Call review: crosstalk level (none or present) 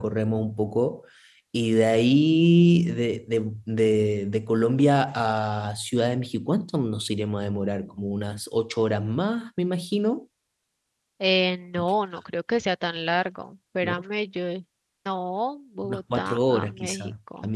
present